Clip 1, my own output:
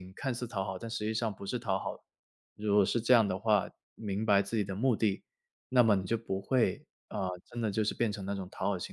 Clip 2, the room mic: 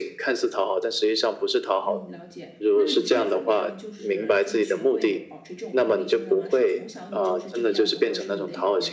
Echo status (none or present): present